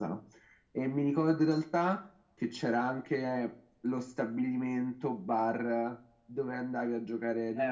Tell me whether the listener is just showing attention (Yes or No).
No